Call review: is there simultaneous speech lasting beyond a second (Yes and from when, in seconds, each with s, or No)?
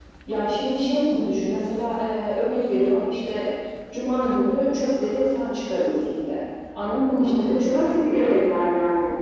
Yes, from 6.9 s